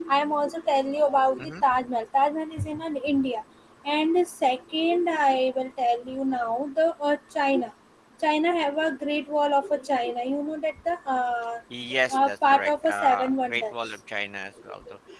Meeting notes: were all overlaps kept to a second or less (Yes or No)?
No